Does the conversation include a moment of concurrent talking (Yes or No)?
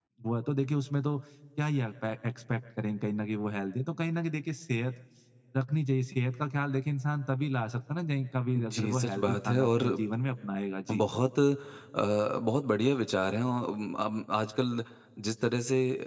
Yes